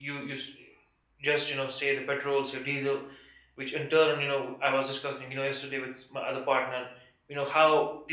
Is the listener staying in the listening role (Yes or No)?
Yes